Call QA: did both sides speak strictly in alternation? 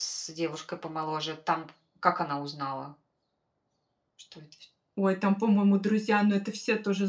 Yes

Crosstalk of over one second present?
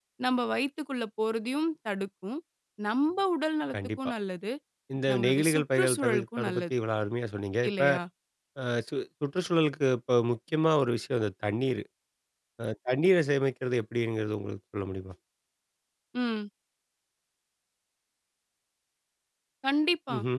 Yes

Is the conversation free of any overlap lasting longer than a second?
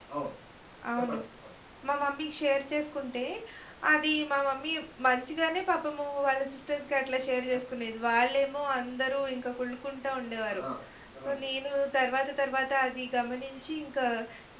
Yes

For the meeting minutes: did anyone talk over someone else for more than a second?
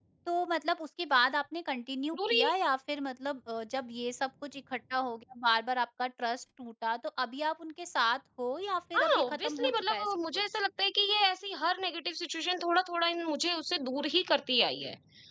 Yes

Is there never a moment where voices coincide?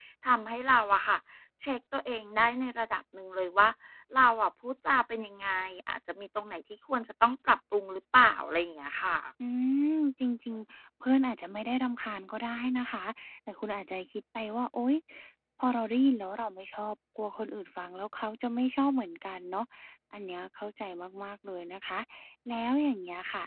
Yes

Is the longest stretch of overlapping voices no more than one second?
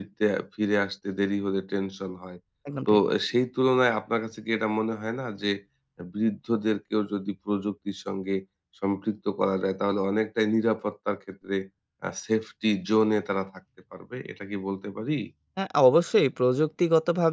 Yes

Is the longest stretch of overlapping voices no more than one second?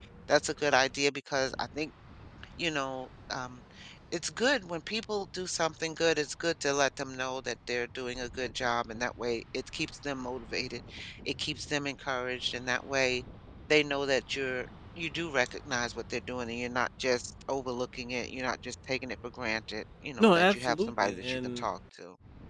No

